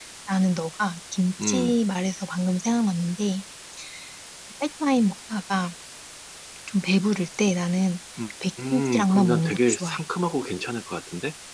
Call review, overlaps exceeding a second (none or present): present